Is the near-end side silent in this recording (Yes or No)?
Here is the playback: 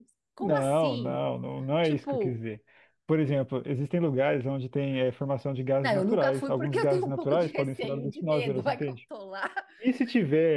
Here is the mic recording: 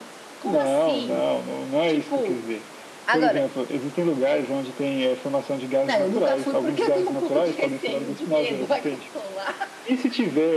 No